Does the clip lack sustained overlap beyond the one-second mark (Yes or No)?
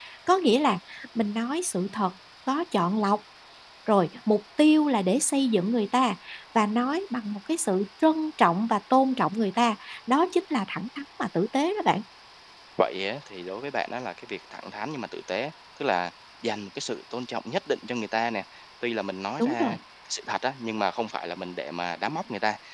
Yes